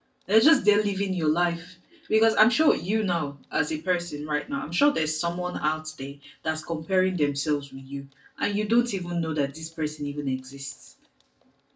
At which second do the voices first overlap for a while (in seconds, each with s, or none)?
none